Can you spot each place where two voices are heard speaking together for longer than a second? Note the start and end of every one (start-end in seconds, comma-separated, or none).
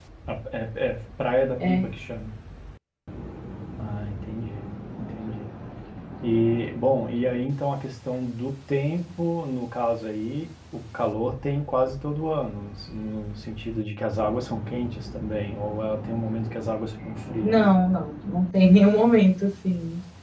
none